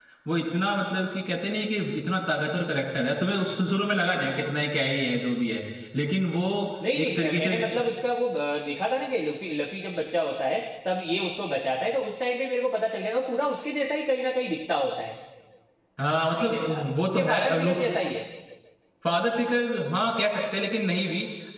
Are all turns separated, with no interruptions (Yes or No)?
No